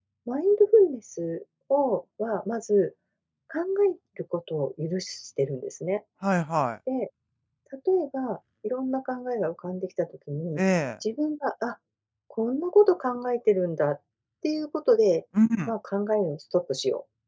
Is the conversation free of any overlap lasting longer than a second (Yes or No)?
Yes